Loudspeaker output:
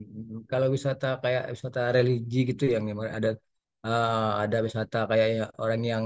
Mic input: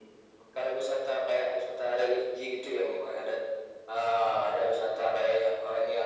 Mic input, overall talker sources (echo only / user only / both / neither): echo only